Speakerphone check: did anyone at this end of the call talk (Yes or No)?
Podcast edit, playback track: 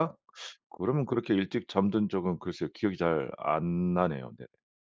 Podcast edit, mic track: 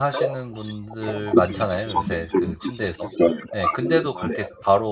Yes